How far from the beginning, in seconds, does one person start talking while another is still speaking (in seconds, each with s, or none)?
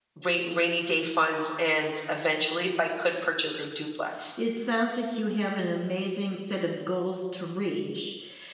none